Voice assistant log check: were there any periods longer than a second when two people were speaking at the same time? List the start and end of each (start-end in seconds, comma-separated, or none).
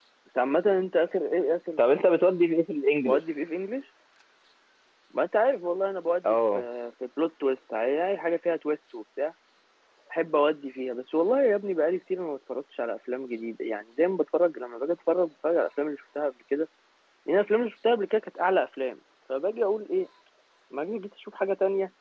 none